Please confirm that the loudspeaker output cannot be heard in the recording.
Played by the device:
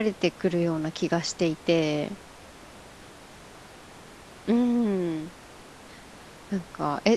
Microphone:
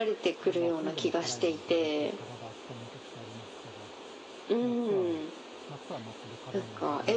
No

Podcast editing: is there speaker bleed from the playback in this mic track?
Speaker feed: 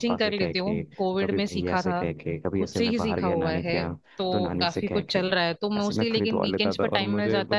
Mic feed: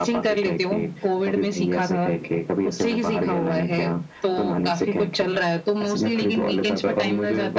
Yes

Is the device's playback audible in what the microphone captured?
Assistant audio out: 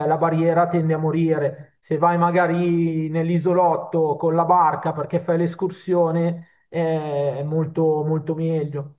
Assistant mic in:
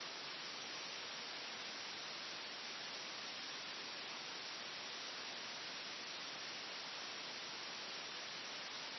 No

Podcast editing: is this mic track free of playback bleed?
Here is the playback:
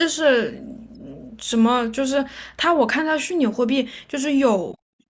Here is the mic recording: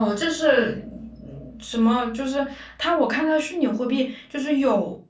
No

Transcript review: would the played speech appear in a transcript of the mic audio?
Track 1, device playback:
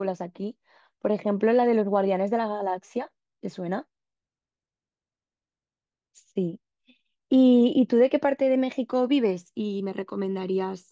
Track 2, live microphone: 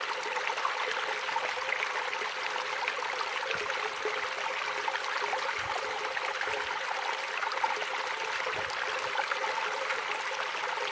No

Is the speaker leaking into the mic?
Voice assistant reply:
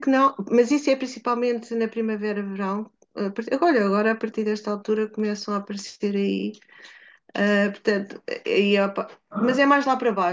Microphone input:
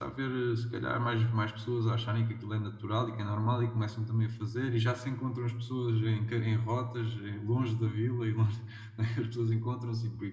No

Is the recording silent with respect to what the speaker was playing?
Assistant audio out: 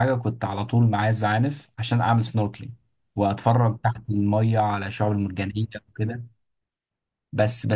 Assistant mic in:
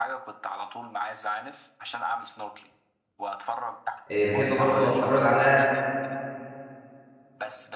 No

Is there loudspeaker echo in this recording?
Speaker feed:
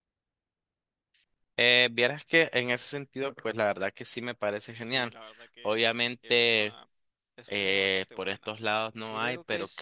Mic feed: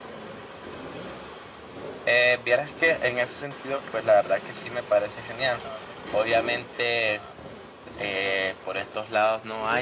Yes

